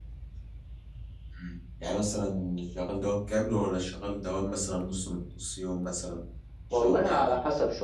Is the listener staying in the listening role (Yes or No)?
No